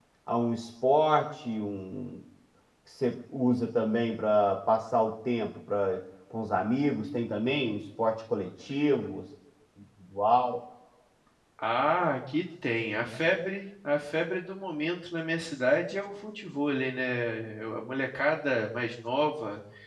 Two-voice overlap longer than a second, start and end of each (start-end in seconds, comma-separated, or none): none